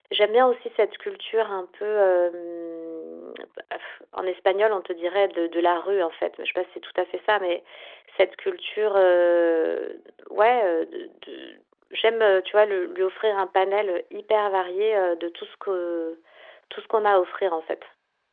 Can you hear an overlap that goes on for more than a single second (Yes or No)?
No